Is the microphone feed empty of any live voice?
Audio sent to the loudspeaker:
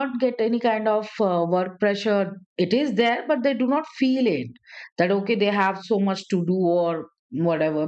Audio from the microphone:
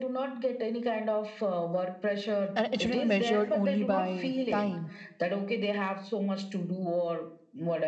No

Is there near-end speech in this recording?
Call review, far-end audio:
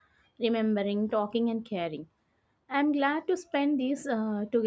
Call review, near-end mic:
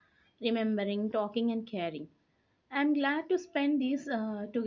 No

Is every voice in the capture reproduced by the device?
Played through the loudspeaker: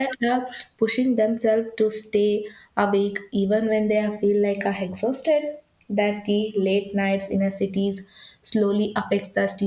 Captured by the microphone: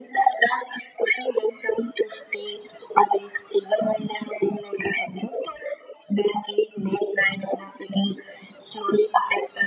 Yes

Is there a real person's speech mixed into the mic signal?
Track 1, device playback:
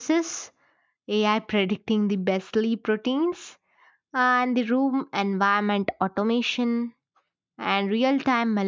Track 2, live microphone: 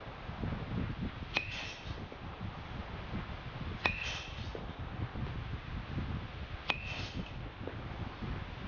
No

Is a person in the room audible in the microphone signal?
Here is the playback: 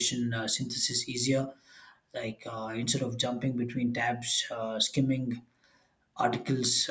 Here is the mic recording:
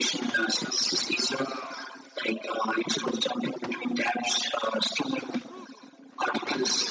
No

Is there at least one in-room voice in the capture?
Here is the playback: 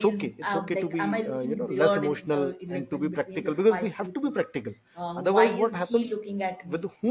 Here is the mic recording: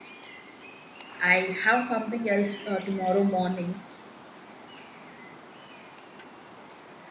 Yes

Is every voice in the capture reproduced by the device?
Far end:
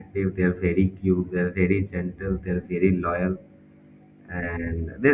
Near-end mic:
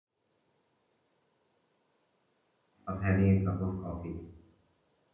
No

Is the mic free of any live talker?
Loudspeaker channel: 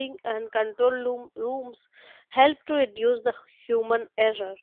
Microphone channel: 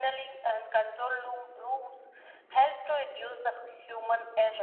Yes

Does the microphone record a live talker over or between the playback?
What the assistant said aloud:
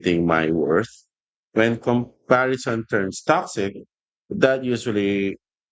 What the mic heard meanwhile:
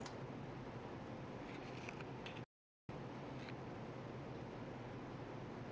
No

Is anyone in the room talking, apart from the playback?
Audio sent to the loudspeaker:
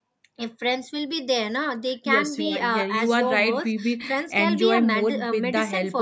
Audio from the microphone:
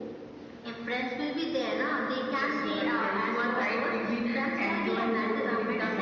No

